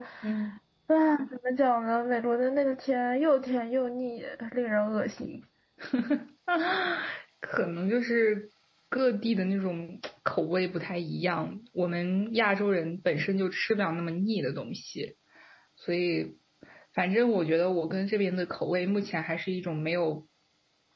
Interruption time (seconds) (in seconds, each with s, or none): none